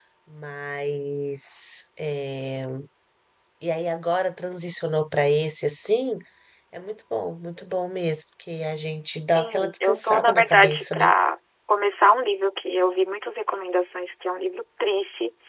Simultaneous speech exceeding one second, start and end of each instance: 9.3-11.1

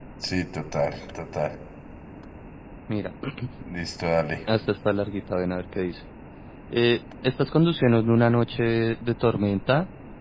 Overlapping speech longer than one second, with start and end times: none

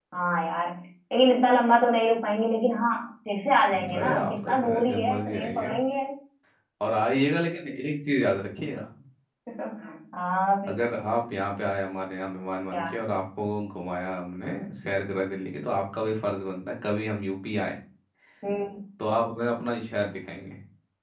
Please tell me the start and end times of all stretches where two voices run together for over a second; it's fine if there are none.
3.7-5.7

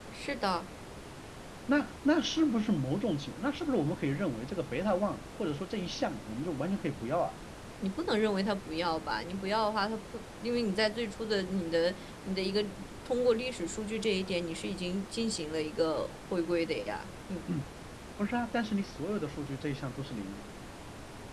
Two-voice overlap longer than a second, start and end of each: none

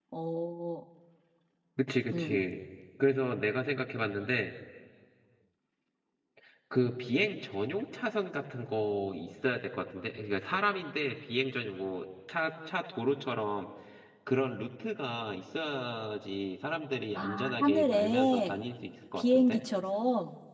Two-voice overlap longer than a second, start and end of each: 17.1-18.6

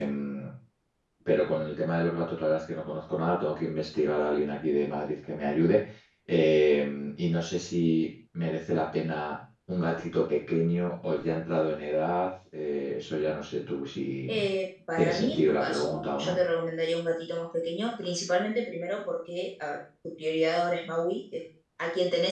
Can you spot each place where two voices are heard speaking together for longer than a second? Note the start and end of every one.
15.0-16.4

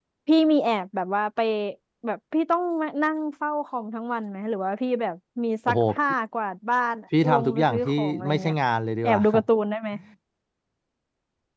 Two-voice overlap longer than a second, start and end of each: 7.3-8.5

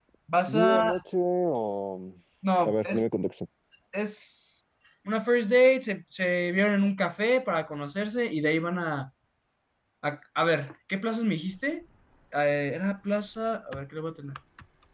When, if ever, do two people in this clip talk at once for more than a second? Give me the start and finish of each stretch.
none

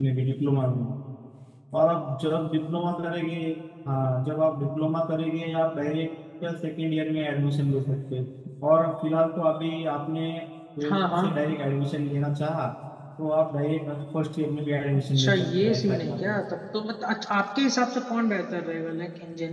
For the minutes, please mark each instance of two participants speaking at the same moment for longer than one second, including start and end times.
14.9-16.4

